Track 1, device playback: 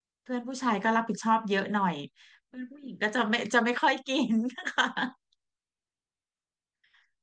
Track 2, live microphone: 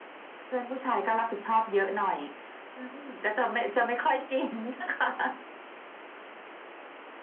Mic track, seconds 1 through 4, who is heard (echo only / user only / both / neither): echo only